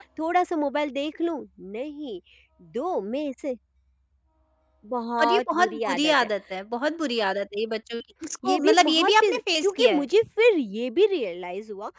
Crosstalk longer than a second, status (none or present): present